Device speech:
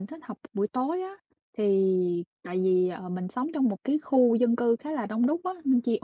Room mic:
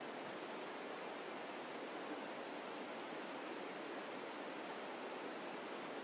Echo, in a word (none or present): none